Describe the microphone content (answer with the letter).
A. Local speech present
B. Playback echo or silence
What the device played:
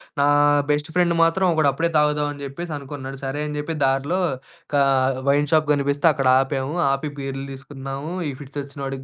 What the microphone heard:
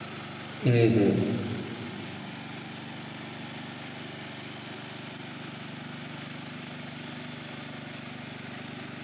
A